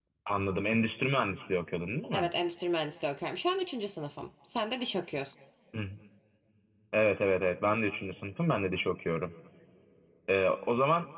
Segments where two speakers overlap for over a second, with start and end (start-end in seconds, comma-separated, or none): none